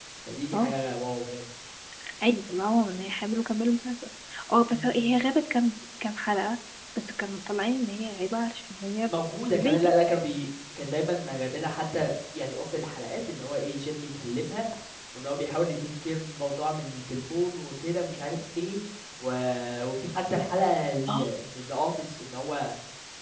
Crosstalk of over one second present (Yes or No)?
No